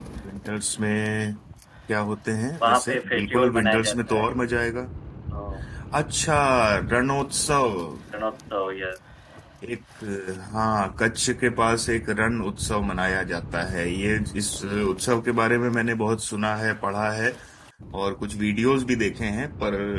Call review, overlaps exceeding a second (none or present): present